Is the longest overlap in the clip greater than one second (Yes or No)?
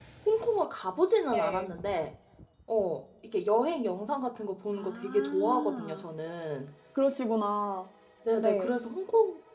Yes